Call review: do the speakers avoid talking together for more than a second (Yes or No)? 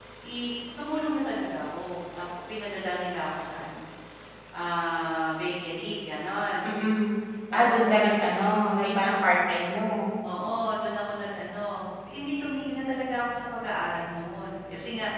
Yes